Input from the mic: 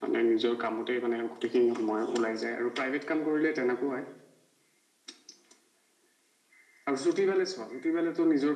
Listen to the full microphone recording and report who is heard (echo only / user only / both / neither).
echo only